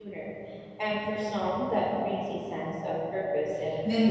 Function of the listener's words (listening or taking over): taking over